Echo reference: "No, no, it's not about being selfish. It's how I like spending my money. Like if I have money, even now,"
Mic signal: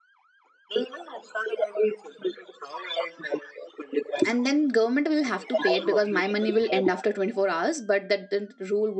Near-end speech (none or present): present